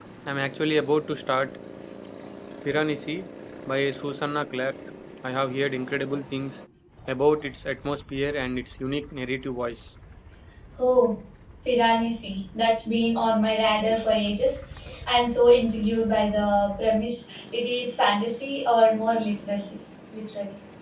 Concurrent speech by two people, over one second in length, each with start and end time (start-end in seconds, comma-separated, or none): none